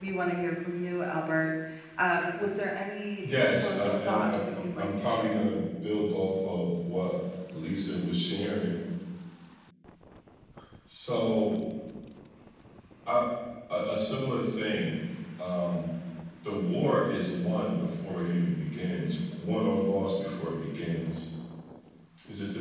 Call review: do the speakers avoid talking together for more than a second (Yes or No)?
No